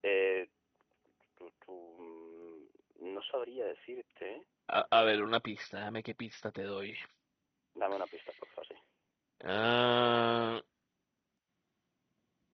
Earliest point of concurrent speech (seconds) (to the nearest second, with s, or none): none